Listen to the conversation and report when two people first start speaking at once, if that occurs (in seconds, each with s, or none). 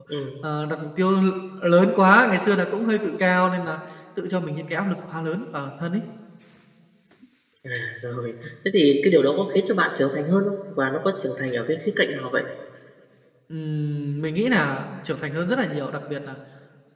none